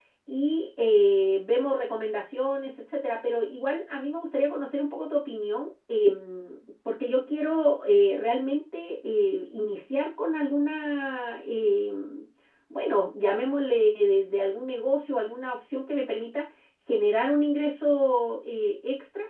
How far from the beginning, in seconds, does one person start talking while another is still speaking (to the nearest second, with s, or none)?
none